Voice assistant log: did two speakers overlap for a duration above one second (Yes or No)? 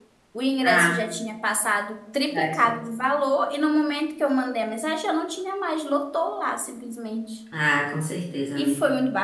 No